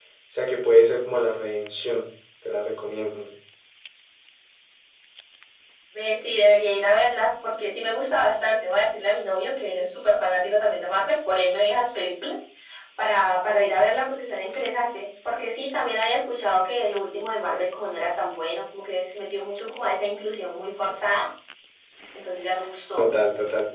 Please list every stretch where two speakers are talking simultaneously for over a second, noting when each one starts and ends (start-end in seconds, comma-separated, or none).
none